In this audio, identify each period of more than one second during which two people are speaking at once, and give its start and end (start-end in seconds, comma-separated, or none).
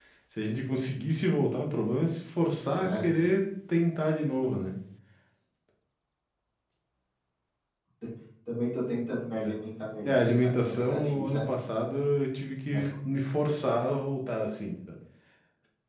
10.1-11.4